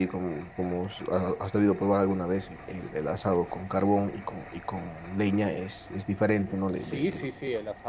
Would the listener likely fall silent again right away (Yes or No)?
No